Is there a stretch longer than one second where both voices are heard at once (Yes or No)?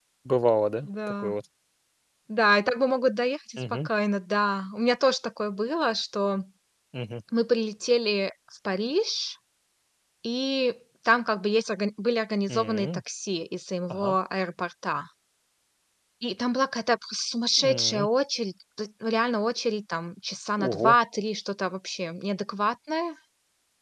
No